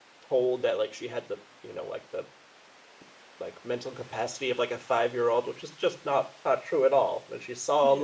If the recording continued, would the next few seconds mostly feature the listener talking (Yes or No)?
No